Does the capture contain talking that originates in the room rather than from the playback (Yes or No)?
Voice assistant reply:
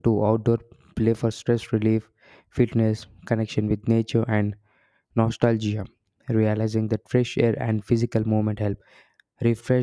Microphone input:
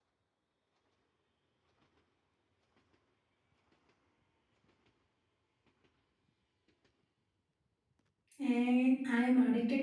Yes